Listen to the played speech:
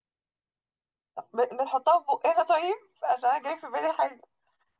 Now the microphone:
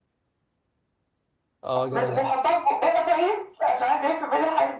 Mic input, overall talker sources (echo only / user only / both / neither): both